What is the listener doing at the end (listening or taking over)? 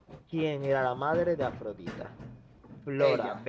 listening